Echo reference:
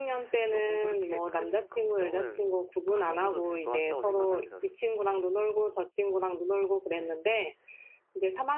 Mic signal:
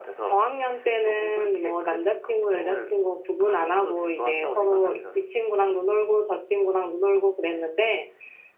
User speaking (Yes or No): No